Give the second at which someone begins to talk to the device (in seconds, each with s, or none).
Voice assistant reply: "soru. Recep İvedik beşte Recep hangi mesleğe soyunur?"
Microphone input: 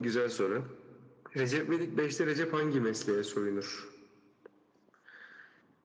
none